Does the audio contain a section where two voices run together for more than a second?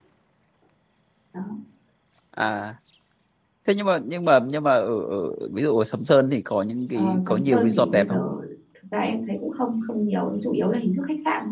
Yes, from 7.0 s

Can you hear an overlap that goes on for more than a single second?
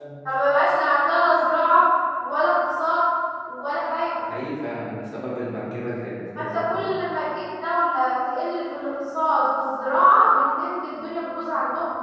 No

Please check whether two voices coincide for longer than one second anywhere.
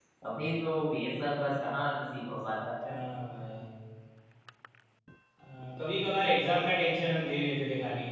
No

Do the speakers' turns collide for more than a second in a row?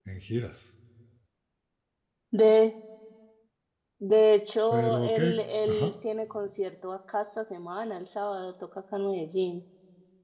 Yes, from 4.7 s

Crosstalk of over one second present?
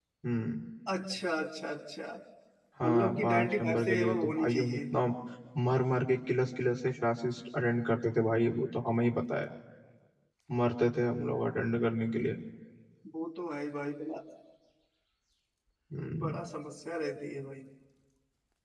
Yes, from 2.8 s

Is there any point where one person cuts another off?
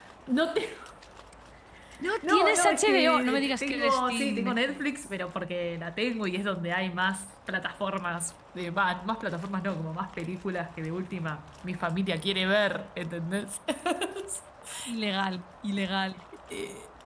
Yes, from 2.3 s

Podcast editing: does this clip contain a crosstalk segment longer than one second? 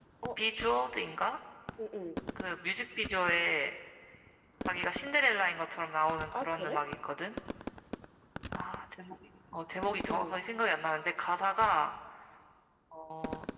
No

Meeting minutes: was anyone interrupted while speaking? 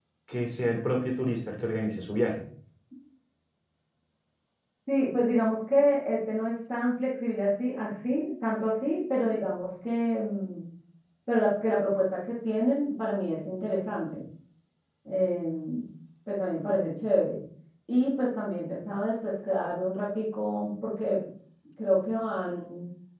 No

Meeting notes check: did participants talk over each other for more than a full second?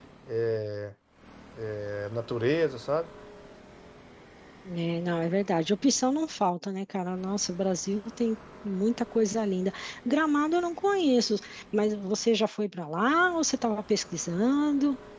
No

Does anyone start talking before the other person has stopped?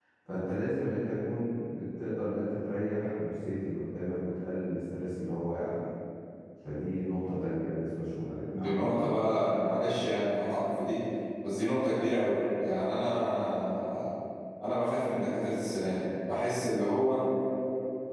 Yes, from 8.5 s

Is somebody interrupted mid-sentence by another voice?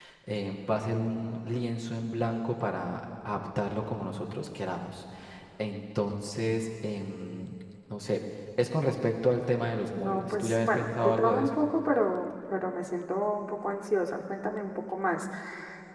Yes, from 9.9 s

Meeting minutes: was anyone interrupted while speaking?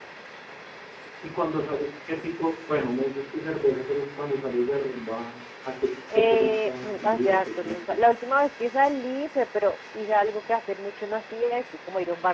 Yes, from 6.1 s

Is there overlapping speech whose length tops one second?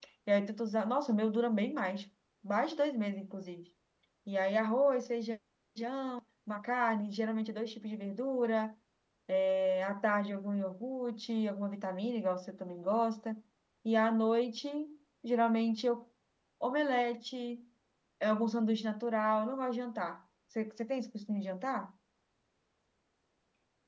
No

